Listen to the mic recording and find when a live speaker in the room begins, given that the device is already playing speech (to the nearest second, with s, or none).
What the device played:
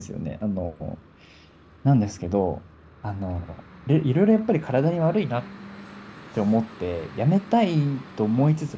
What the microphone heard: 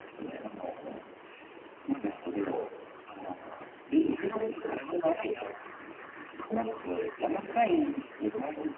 none